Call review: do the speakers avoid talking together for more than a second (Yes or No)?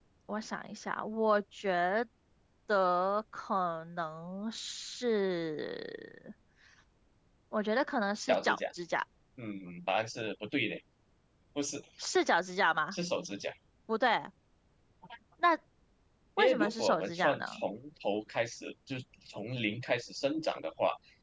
No